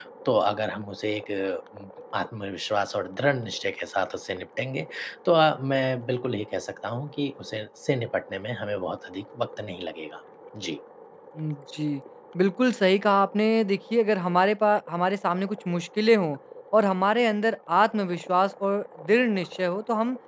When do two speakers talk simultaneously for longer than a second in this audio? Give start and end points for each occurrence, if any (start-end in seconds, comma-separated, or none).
none